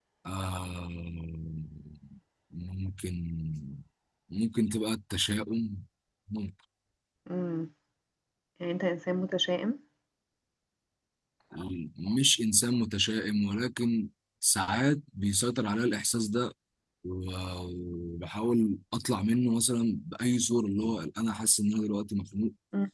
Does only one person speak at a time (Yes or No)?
Yes